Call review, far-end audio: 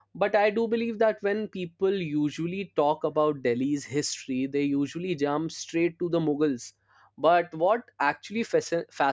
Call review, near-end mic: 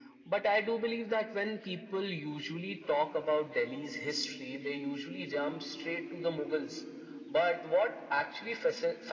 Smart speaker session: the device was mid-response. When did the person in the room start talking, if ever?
none

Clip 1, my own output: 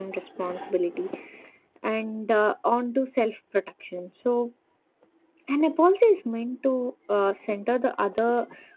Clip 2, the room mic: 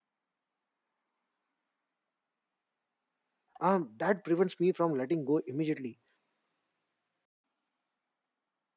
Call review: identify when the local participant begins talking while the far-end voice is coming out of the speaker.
3.6 s

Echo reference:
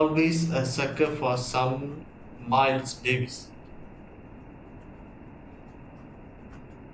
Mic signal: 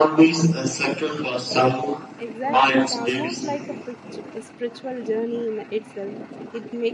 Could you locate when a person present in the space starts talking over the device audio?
2.2 s

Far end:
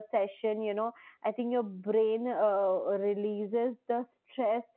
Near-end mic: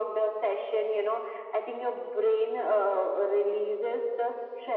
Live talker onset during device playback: none

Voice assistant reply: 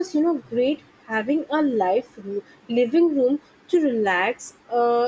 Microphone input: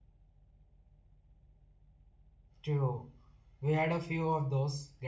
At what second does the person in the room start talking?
2.6 s

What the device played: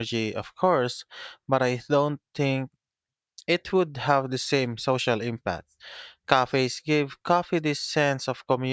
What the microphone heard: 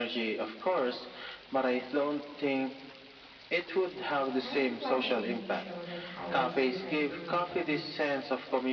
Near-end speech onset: 4.4 s

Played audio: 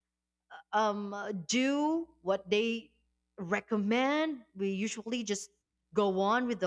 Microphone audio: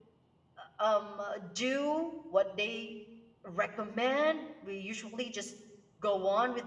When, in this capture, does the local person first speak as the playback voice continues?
none

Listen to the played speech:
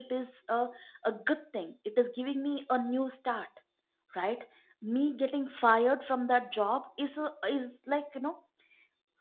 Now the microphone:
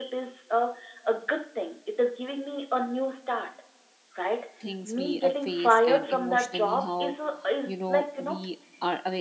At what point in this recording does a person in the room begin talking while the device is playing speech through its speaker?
4.6 s

